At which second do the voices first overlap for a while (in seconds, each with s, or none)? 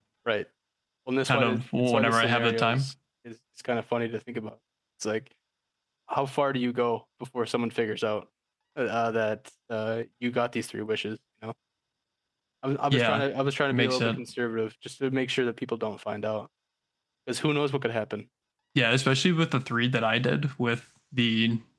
1.3 s